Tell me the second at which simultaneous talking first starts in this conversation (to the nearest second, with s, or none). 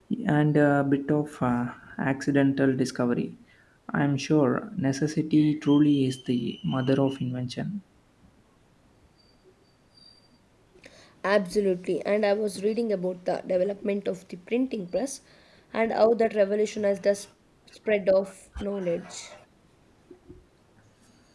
none